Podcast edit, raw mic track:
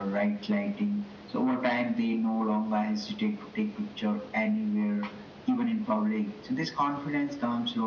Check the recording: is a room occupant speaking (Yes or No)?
No